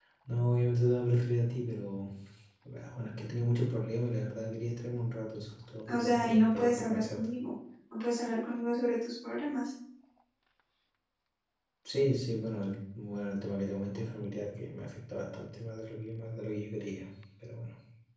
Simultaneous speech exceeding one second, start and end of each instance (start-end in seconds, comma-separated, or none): 5.9-7.2